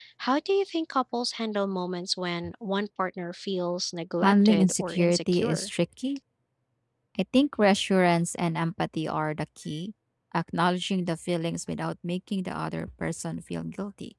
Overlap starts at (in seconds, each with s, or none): 4.2 s